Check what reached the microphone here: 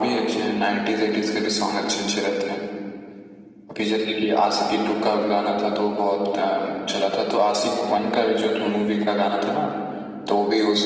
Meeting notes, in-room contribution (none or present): none